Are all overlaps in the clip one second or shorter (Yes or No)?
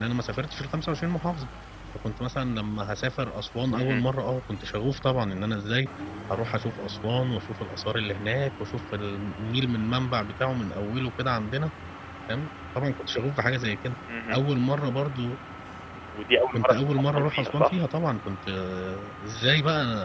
No